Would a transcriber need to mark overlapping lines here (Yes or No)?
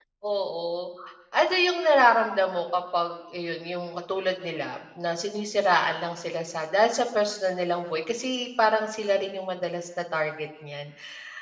No